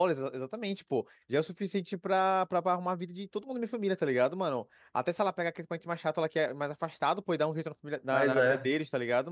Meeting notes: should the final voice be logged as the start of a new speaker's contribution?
No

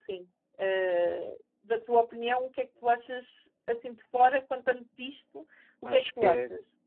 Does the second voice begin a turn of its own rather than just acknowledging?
Yes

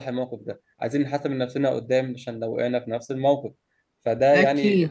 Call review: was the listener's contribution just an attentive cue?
Yes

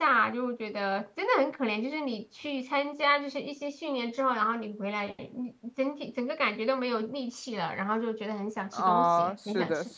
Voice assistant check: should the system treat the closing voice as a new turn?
Yes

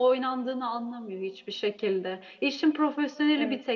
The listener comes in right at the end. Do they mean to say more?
No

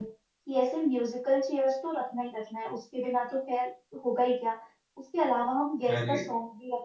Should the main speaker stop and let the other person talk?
No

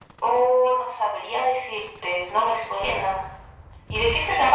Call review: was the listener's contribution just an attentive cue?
No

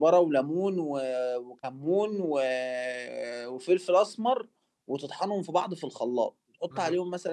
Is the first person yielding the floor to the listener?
No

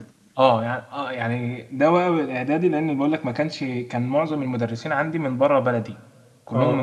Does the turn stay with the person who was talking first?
Yes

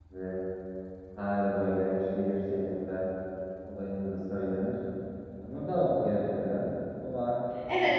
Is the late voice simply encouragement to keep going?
No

